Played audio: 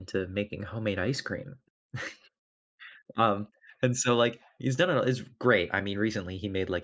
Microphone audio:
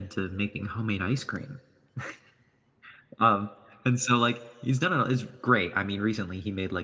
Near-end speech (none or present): none